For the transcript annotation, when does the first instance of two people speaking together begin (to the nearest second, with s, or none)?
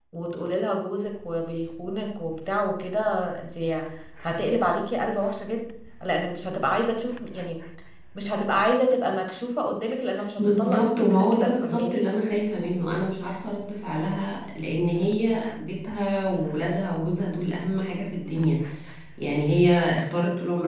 10 s